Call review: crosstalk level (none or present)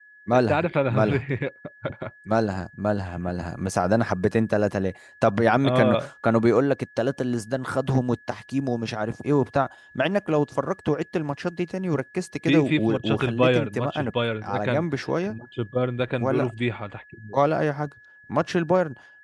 present